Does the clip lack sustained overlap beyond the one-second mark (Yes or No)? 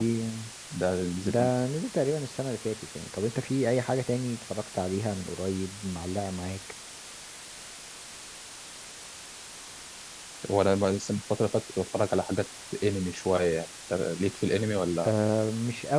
Yes